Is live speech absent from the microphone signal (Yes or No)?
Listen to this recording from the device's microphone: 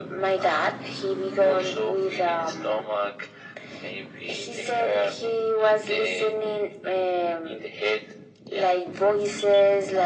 Yes